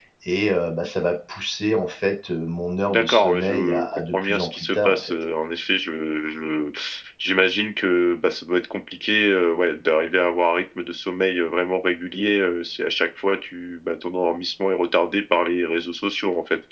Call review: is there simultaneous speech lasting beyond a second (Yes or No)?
Yes